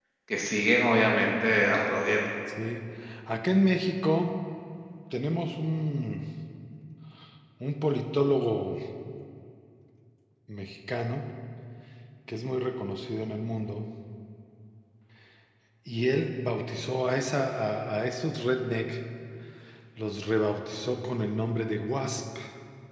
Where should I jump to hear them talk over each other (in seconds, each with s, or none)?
none